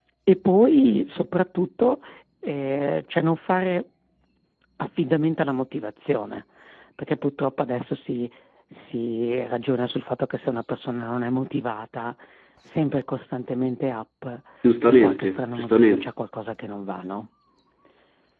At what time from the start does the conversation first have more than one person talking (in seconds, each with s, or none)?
14.9 s